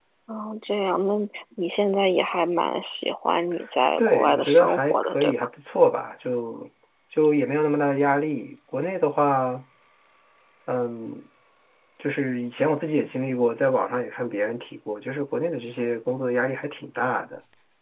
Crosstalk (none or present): present